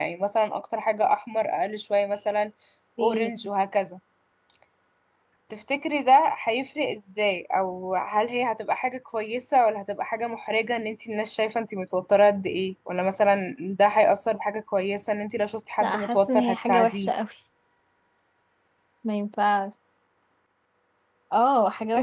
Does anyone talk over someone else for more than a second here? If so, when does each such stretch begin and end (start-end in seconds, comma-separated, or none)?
15.8-17.1